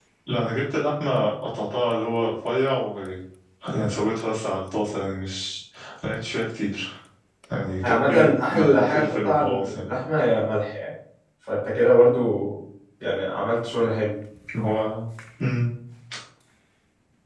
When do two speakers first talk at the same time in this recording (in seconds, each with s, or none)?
7.8 s